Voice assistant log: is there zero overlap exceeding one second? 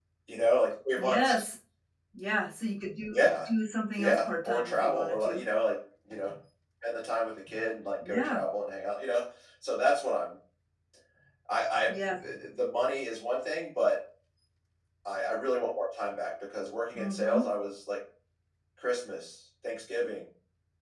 No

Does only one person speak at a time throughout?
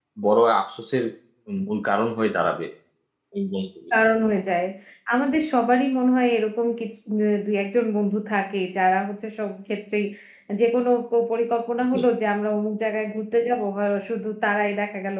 Yes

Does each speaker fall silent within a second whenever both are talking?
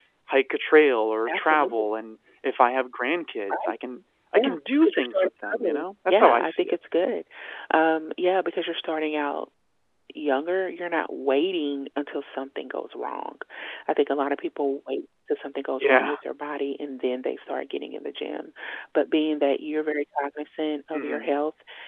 No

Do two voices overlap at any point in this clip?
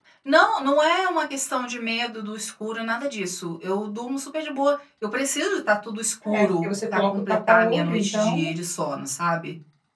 Yes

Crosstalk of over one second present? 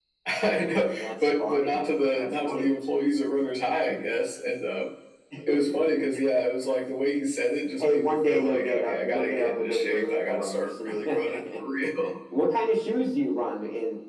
Yes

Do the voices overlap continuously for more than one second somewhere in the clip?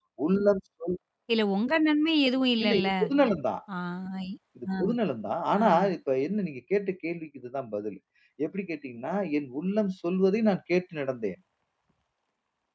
No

